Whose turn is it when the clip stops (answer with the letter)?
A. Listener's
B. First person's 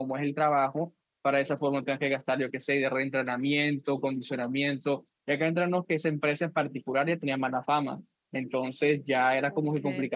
B